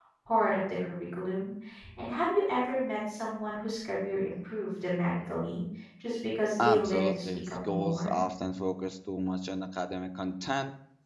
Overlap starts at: 6.6 s

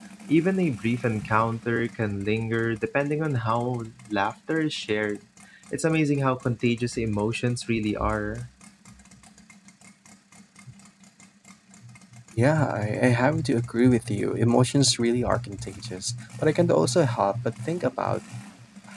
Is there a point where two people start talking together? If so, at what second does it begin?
none

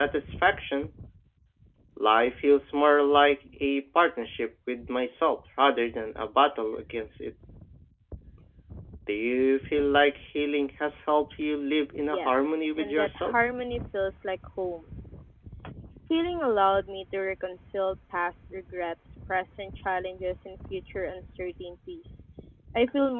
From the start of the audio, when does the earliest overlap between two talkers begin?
12.1 s

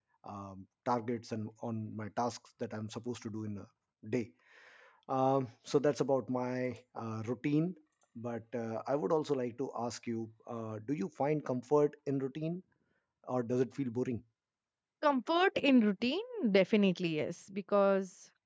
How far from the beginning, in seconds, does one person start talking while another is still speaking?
none

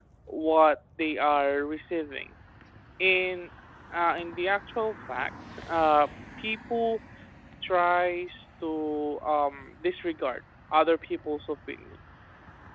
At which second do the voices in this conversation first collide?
none

